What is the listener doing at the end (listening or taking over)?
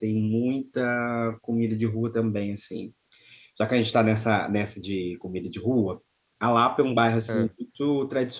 listening